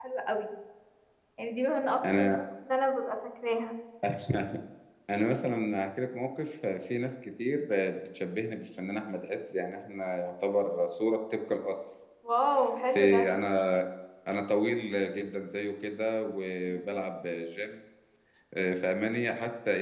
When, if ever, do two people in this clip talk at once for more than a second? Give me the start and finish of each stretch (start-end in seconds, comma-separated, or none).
none